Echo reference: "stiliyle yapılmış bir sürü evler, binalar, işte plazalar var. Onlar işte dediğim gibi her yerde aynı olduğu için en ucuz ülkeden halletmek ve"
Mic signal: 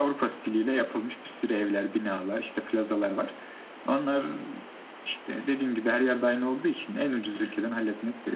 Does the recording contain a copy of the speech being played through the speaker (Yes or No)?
Yes